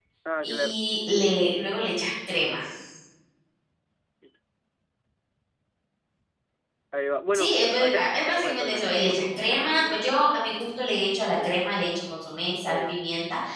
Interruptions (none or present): present